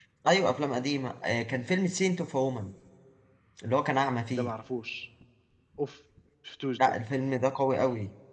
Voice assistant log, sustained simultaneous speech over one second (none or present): none